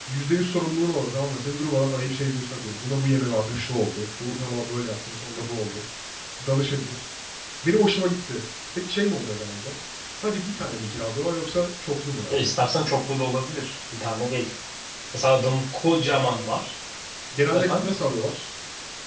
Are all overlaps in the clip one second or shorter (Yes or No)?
Yes